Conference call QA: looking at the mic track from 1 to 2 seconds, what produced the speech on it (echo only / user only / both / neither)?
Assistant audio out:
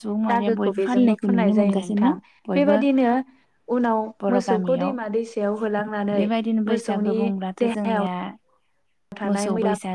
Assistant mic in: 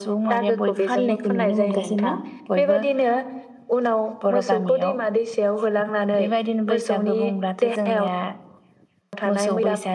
echo only